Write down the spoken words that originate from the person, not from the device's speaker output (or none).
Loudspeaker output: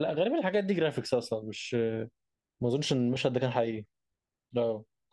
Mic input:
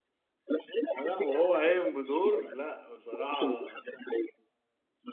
لا وهو قايم بدور لا بصراحة